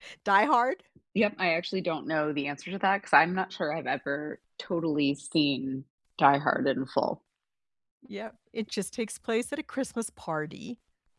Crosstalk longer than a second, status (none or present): none